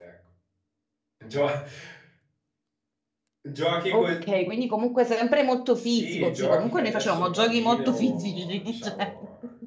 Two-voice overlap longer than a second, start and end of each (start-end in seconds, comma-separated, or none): 5.8-9.1